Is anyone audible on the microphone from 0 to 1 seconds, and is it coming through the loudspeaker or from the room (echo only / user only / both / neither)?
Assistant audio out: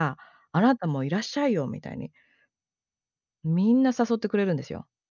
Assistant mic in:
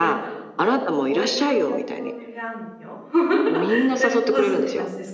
both